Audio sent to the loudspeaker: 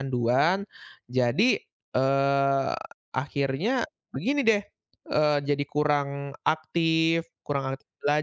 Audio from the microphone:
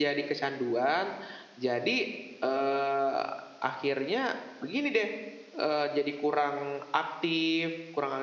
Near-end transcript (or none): none